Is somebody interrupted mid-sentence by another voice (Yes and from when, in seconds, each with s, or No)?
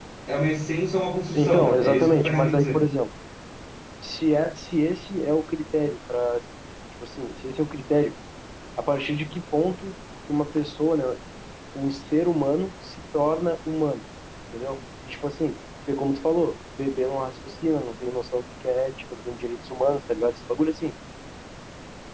Yes, from 1.3 s